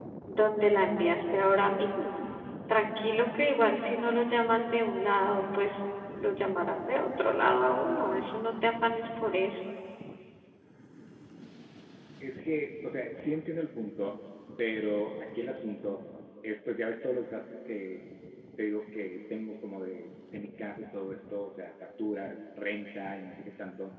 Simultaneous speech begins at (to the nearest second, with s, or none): none